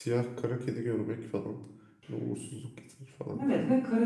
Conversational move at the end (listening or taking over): taking over